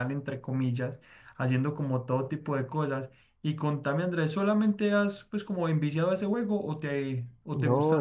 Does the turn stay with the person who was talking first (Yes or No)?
No